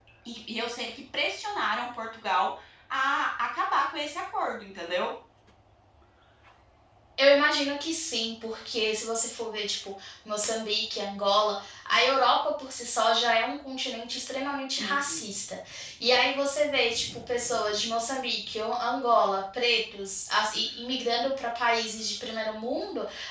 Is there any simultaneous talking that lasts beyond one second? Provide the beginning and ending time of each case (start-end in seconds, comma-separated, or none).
none